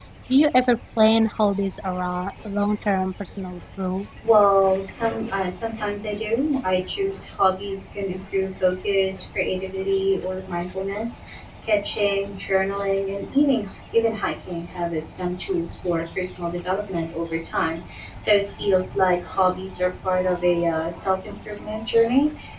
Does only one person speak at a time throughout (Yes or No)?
Yes